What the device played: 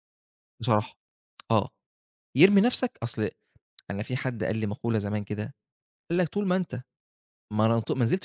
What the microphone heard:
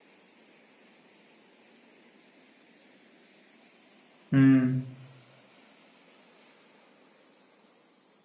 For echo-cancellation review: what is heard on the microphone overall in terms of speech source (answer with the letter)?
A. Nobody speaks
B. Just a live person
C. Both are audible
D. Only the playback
B